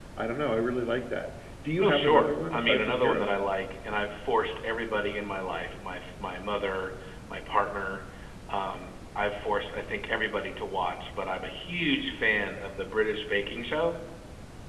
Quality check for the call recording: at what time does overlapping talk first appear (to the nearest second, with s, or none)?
2 s